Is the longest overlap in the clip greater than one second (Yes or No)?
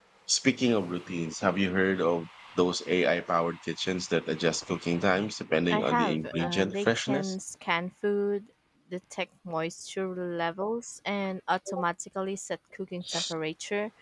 Yes